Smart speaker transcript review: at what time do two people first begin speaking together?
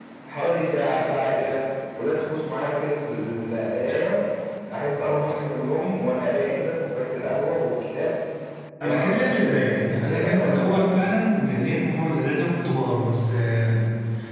8.8 s

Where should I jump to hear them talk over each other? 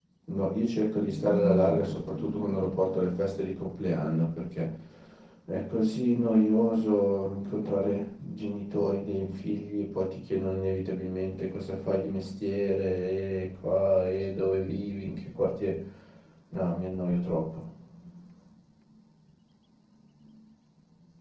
1.3 s

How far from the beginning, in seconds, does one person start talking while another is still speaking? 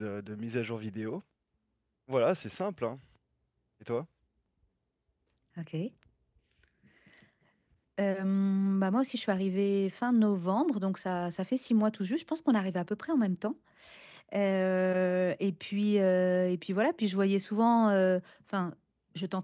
none

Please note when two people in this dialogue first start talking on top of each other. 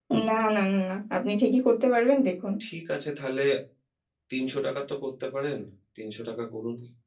none

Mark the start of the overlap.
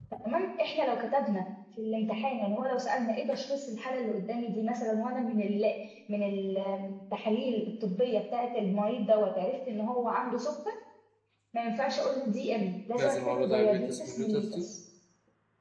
13.0 s

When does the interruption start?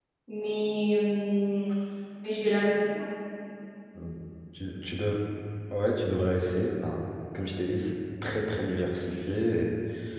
none

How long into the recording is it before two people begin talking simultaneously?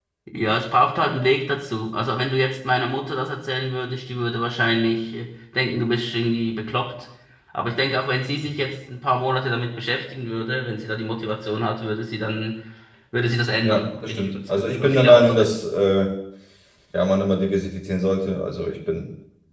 13.6 s

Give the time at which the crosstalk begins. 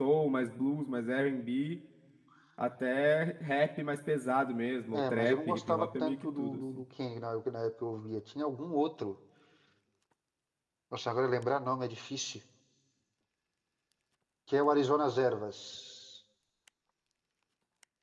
4.9 s

